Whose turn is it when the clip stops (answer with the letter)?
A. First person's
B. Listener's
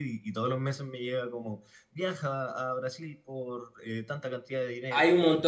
B